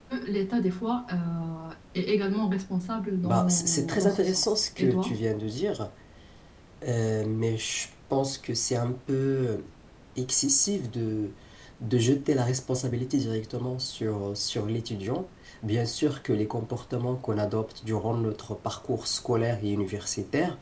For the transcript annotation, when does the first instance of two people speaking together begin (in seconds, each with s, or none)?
3.2 s